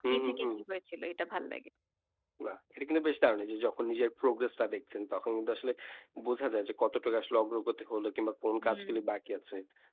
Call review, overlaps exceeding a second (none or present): none